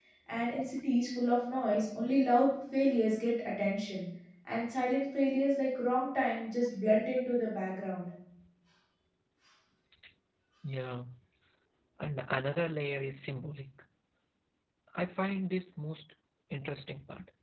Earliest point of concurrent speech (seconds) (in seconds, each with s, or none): none